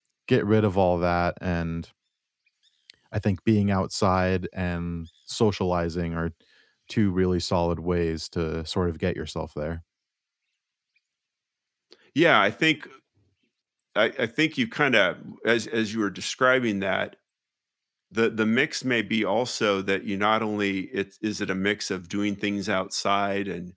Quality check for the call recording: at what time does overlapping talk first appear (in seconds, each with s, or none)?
none